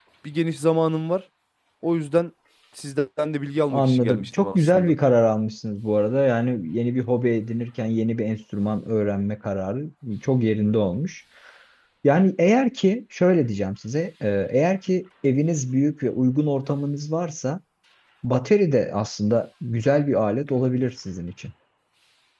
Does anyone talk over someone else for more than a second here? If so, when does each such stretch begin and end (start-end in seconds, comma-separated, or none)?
3.7-4.9